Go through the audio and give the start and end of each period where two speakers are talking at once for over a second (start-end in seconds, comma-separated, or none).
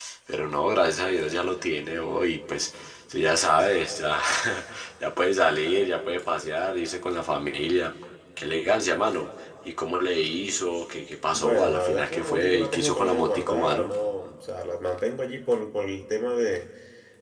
11.3-13.9